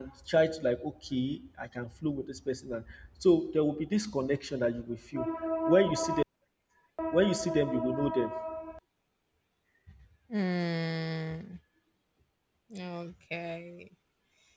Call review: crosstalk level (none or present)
none